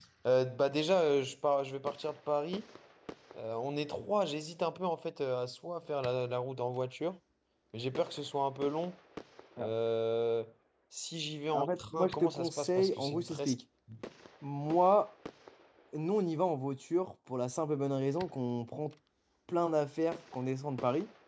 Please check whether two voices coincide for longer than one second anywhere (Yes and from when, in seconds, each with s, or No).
Yes, from 11.5 s